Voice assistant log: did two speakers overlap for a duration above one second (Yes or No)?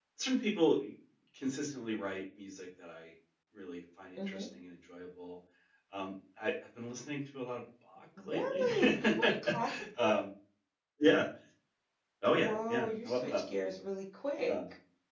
Yes